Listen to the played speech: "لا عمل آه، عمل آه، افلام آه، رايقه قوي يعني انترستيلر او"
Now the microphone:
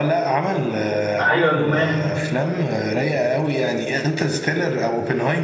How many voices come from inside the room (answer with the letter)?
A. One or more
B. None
A